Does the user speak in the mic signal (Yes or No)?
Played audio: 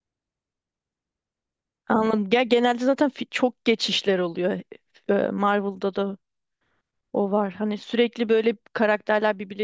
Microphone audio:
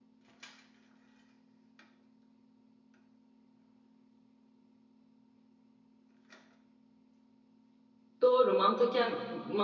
Yes